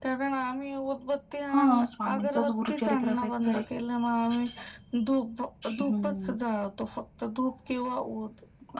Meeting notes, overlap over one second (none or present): present